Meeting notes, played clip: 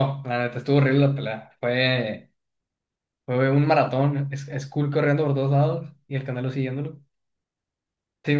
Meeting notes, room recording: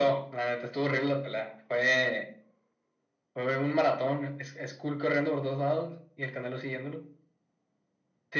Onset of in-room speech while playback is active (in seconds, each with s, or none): none